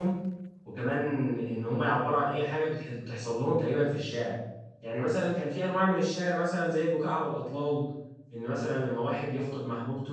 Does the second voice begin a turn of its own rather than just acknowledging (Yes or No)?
No